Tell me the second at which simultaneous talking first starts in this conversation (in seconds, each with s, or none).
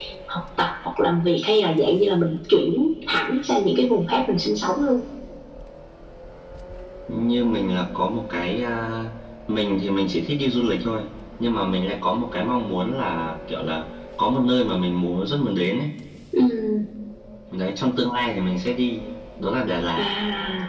none